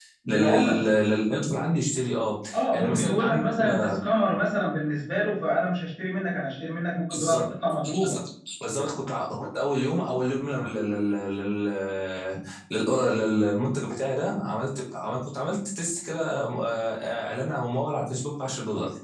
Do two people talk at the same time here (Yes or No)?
Yes